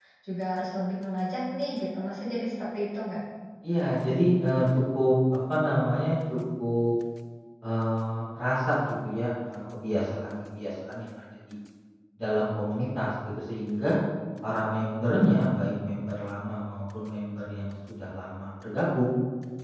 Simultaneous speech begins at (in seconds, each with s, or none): none